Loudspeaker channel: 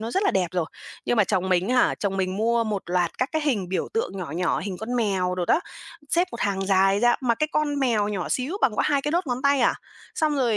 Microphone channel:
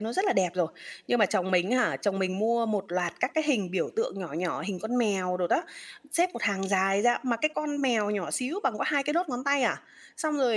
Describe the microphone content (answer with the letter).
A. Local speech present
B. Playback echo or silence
B